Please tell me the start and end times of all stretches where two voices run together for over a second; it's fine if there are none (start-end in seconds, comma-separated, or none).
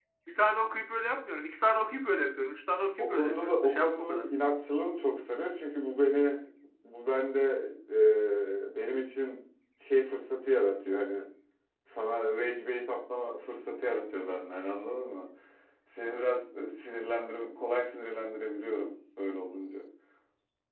3.0-4.2